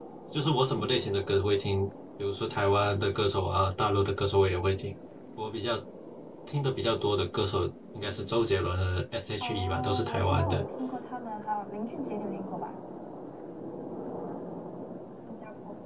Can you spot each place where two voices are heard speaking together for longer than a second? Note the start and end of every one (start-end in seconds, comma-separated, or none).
9.4-10.6